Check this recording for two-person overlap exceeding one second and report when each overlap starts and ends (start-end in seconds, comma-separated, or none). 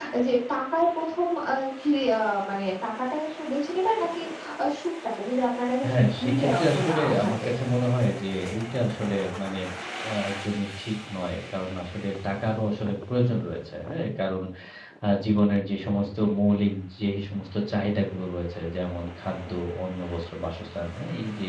5.8-7.5